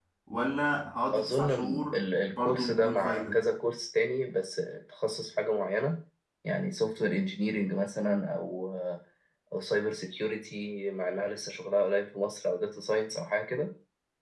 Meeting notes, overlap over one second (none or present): present